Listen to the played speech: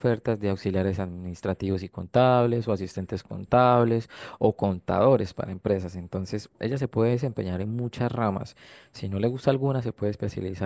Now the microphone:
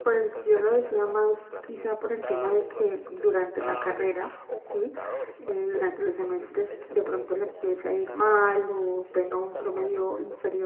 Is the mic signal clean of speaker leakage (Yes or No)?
No